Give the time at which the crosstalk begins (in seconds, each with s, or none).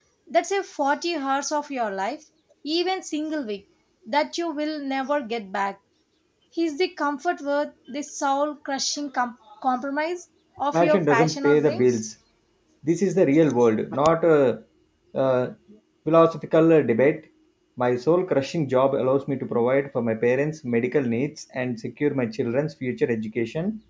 10.7 s